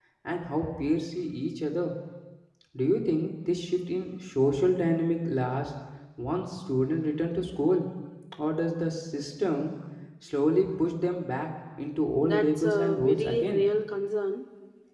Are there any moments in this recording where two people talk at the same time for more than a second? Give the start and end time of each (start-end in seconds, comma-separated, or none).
12.2-13.6